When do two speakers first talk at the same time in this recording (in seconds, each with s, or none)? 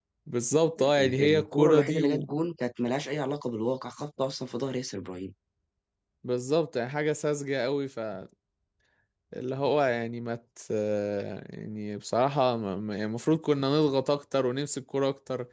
0.8 s